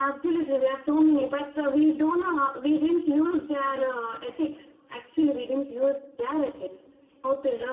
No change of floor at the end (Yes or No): Yes